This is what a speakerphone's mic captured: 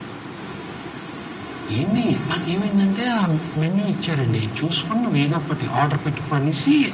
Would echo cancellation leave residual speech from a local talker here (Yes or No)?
No